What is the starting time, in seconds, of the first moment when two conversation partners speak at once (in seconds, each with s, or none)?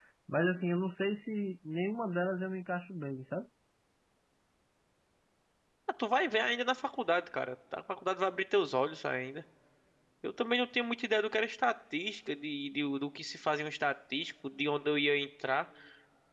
none